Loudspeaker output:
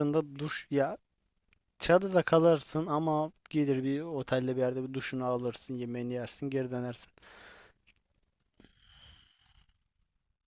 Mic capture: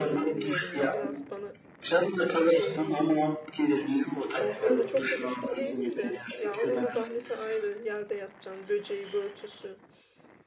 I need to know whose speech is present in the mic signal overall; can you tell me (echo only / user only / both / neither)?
both